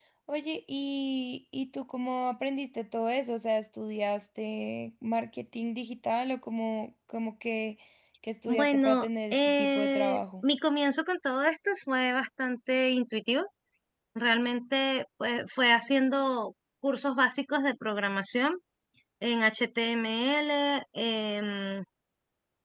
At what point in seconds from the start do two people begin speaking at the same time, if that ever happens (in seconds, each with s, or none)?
8.5 s